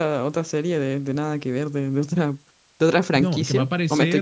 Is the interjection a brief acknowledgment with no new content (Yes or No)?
No